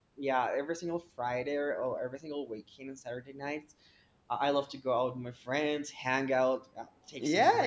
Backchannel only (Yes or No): No